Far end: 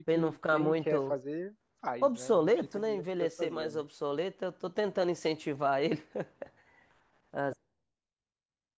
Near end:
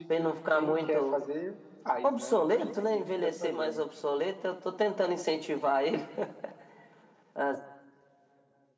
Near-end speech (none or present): none